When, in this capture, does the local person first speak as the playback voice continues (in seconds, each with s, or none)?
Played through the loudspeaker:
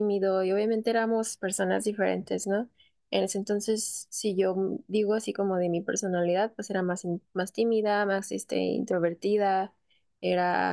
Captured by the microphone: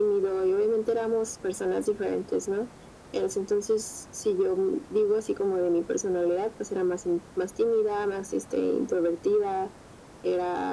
none